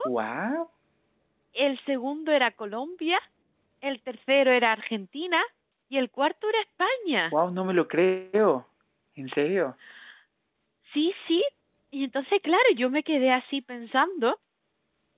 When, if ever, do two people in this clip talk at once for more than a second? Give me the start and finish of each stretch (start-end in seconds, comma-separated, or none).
none